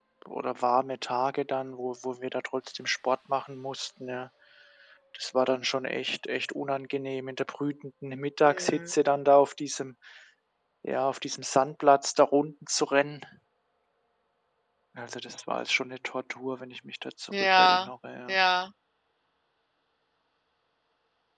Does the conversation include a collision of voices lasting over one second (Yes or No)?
No